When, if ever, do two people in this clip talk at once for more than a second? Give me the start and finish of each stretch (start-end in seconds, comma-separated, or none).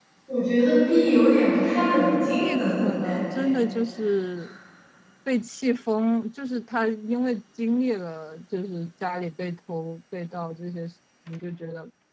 2.2-3.5